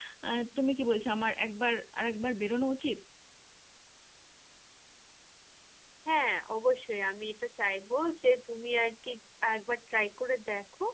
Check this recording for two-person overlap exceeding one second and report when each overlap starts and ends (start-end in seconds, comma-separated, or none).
none